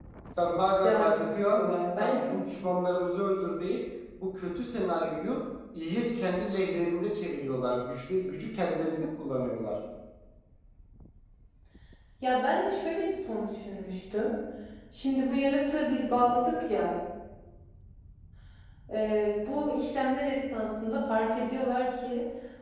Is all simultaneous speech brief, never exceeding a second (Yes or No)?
No